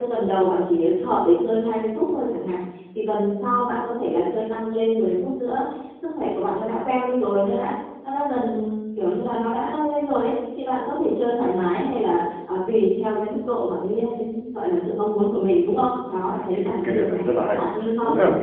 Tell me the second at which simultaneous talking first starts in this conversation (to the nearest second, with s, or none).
16 s